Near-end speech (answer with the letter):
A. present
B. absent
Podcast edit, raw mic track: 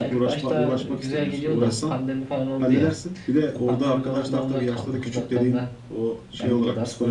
A